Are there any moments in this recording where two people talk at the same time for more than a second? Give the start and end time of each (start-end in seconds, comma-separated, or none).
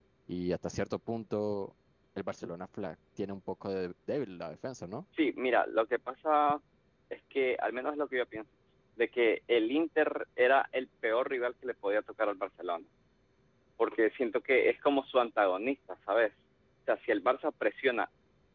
none